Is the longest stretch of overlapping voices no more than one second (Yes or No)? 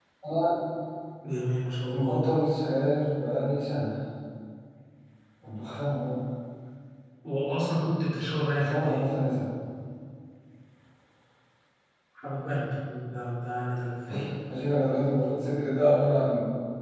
Yes